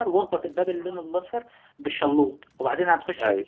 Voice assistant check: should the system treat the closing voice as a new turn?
No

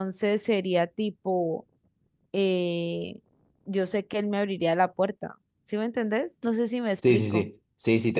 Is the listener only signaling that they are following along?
No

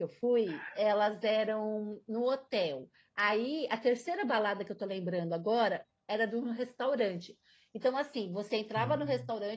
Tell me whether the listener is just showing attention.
Yes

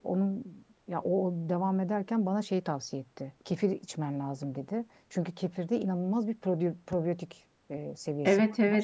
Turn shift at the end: Yes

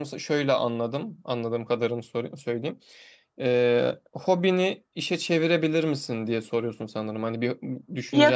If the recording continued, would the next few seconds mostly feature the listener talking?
Yes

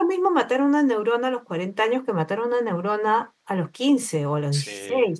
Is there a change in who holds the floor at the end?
No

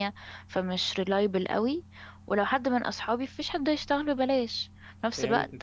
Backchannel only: Yes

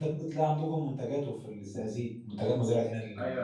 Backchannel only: No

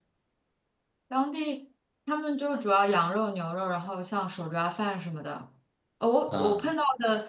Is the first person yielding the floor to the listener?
No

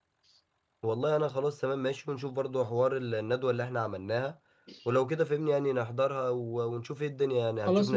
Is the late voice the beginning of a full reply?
Yes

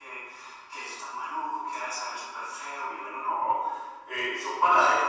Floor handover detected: No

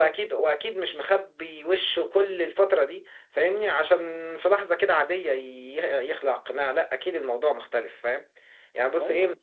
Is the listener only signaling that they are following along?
Yes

